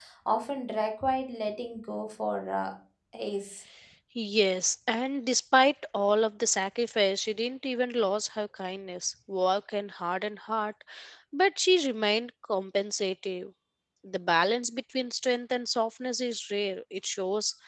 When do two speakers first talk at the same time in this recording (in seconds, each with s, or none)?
none